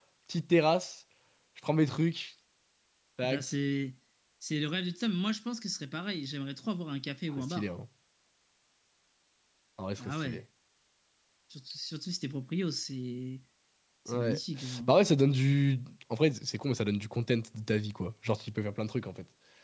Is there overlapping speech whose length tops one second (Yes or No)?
No